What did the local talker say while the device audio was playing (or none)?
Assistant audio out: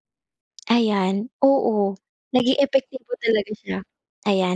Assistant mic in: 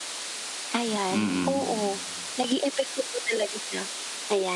Mm.